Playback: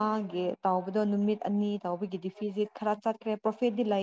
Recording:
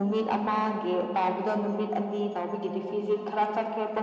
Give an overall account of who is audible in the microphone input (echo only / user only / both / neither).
echo only